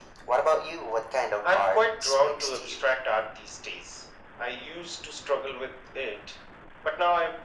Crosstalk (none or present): present